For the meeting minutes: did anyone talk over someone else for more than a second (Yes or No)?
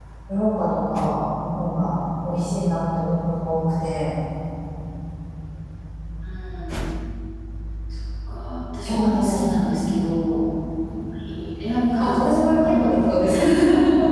Yes